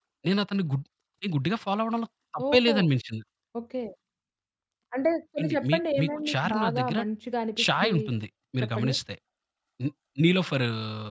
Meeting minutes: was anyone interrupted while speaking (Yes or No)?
Yes